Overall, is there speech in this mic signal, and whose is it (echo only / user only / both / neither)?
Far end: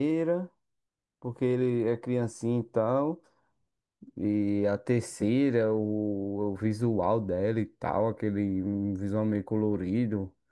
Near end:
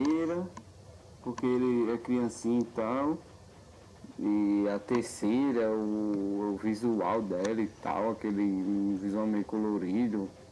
echo only